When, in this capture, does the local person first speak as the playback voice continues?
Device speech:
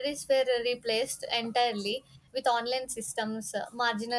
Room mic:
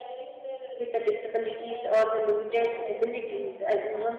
0.8 s

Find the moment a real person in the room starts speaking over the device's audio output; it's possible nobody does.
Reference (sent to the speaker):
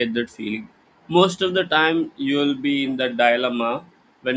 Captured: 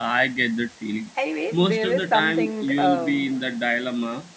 1.2 s

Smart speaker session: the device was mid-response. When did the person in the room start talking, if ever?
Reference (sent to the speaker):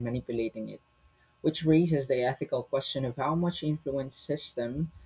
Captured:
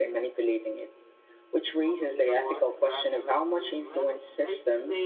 1.9 s

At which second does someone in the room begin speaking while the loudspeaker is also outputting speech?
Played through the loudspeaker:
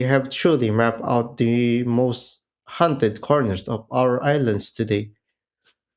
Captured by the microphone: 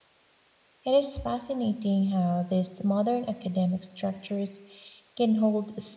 0.8 s

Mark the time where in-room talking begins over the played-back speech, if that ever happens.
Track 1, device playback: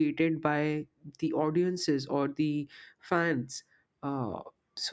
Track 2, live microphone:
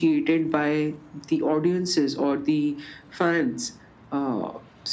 none

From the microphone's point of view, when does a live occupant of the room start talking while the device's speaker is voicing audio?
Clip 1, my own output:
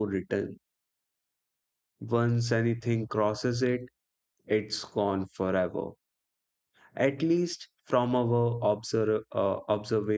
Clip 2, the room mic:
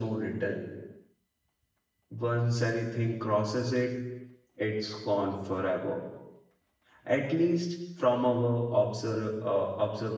none

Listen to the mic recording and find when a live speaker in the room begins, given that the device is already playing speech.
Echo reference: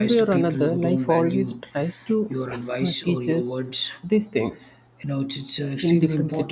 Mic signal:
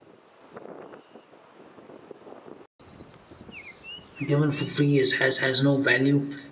4.2 s

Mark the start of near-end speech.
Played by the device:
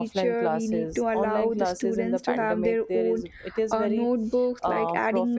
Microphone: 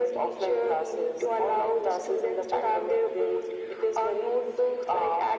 none

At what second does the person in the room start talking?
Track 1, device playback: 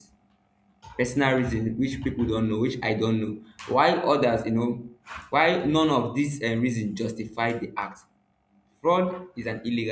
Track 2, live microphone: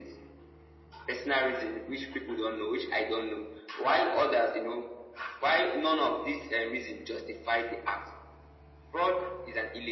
none

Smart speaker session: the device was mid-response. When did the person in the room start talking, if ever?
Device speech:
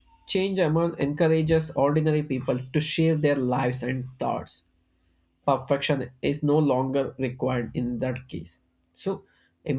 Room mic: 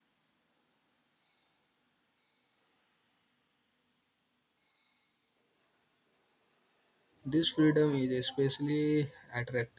7.2 s

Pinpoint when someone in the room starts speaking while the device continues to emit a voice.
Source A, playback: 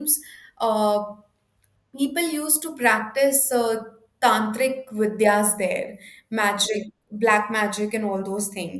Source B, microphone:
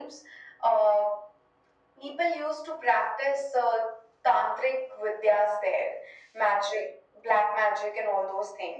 none

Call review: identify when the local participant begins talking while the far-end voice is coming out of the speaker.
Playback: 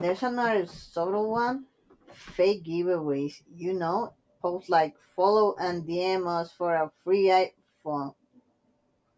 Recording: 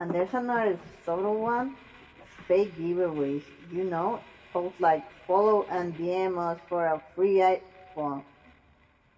none

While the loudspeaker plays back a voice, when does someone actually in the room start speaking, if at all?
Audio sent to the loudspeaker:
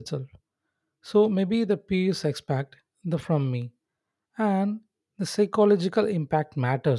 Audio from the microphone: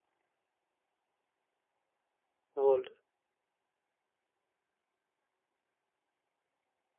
2.5 s

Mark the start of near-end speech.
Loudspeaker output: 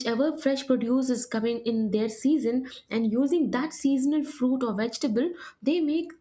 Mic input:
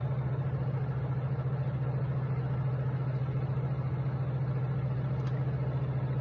none

